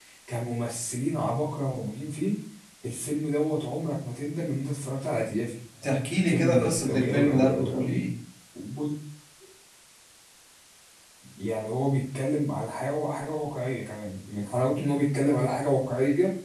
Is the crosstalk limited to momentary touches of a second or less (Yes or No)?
No